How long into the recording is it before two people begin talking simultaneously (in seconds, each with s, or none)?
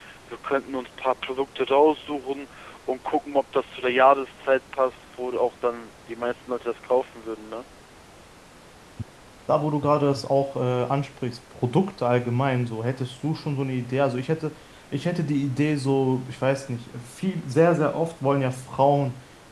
none